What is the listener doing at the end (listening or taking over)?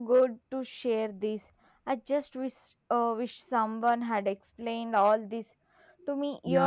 taking over